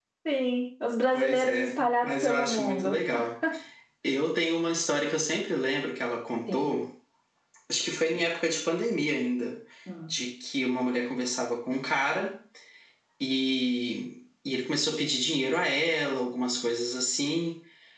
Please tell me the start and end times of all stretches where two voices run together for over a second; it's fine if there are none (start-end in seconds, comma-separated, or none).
1.1-3.0